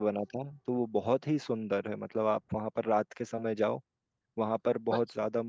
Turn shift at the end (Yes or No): No